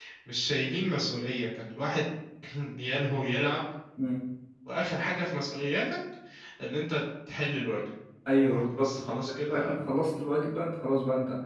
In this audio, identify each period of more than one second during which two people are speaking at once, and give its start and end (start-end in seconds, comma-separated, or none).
8.4-9.9